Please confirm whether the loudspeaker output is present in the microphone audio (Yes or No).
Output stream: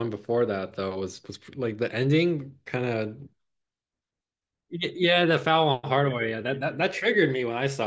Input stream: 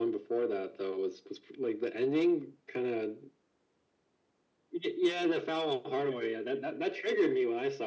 Yes